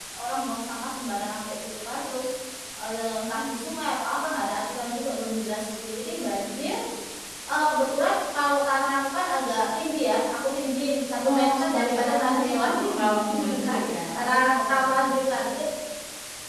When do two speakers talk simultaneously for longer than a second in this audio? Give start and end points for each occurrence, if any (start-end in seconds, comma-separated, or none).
11.2-15.3